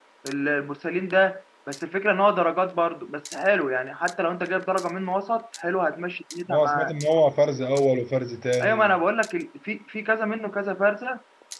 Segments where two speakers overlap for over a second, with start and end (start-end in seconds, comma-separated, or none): none